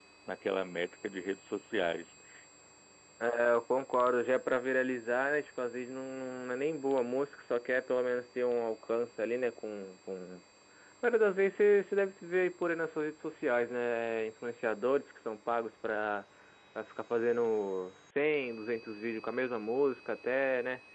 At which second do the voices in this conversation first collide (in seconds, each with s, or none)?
none